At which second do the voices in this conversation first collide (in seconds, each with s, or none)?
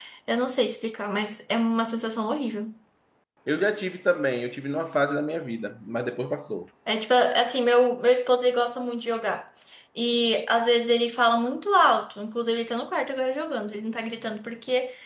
none